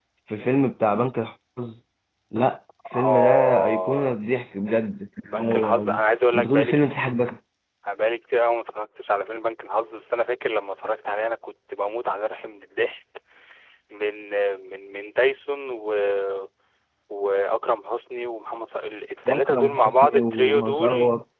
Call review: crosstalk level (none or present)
present